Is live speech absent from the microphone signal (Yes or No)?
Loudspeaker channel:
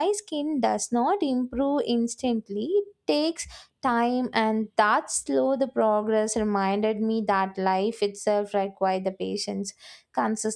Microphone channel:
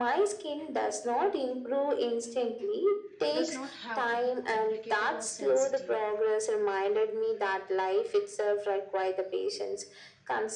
No